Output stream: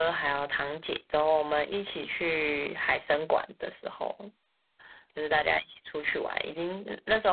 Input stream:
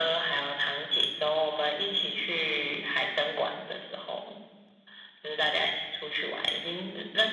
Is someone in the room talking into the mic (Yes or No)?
No